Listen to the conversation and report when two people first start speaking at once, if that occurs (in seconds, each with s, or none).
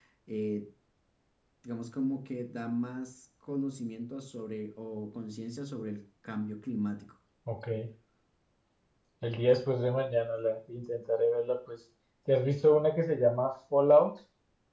none